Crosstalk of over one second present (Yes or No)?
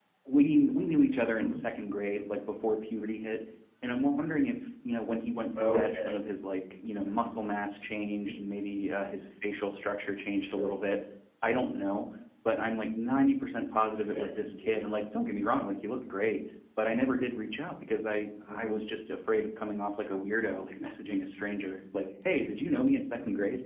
No